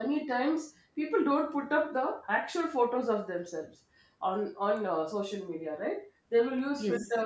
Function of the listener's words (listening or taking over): listening